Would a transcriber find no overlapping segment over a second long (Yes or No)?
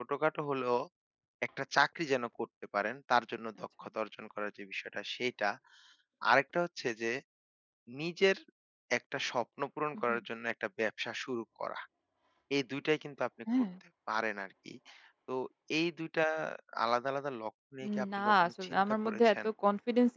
No